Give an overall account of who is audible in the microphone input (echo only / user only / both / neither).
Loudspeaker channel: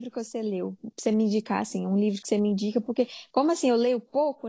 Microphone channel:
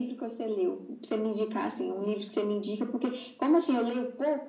echo only